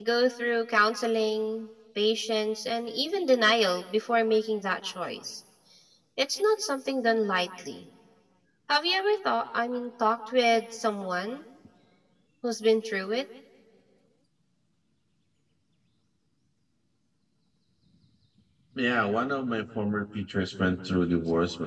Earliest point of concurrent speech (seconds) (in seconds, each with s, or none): none